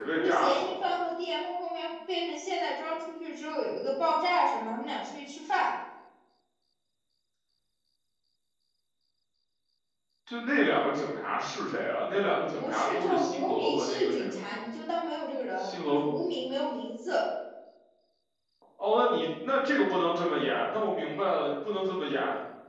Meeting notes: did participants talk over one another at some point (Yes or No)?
Yes